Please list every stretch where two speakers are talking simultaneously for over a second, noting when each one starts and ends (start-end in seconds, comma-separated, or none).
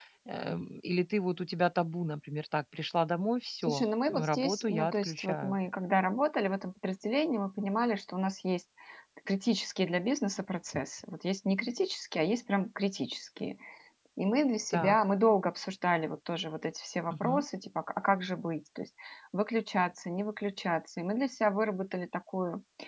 3.6-5.6